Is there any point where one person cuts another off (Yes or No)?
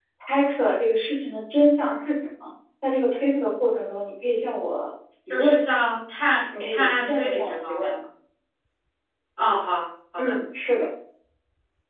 Yes